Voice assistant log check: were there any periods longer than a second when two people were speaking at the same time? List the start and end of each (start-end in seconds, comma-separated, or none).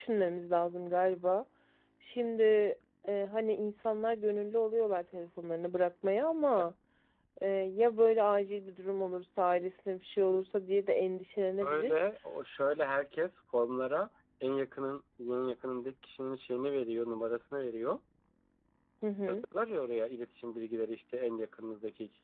none